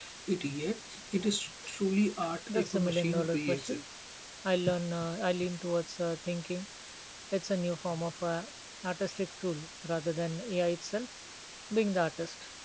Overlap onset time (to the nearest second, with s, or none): 2 s